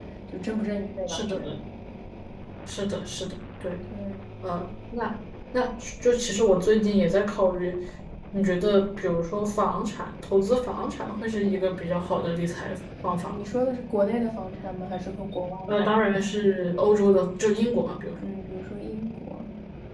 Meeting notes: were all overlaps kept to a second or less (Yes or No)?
Yes